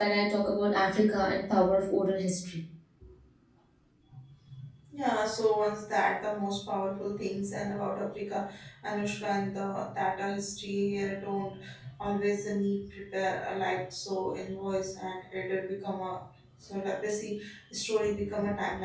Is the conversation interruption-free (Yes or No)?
Yes